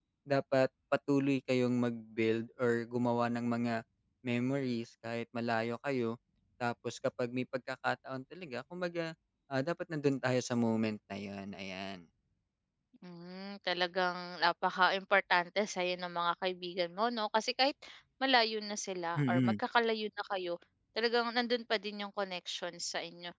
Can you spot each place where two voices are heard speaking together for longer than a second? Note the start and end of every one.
none

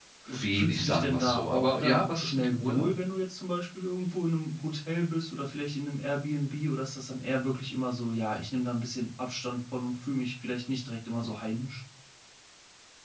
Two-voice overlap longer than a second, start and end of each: 0.5-2.9

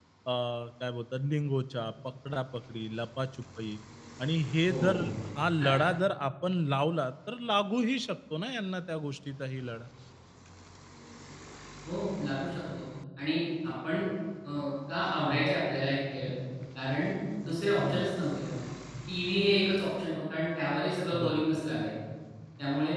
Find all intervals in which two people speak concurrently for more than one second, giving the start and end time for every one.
none

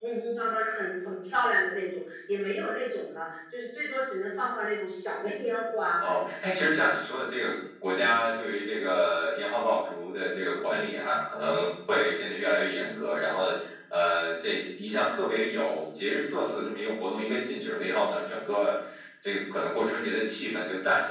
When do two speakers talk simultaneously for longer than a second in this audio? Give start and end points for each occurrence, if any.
none

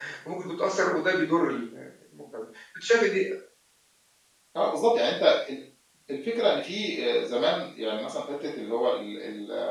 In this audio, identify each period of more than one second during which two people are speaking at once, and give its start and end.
none

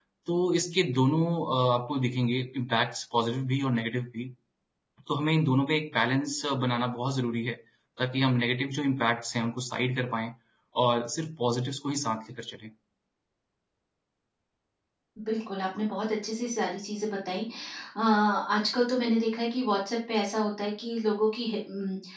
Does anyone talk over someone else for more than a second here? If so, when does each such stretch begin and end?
none

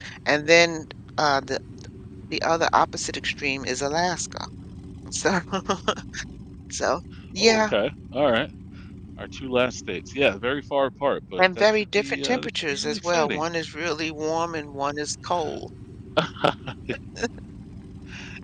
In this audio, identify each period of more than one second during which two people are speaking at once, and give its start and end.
11.4-13.4

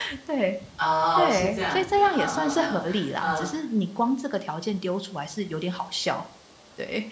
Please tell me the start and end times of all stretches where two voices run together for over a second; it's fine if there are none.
1.2-2.8

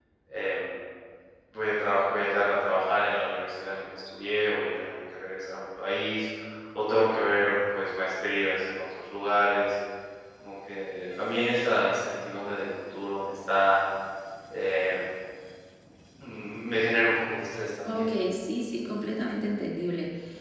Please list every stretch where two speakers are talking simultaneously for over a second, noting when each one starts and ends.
none

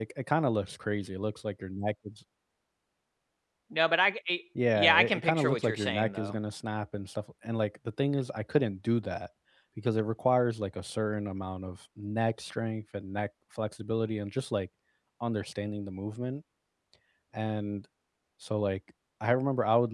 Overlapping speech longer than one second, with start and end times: 4.8-6.4

